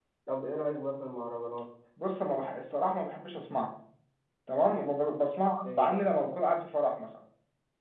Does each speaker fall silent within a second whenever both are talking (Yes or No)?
Yes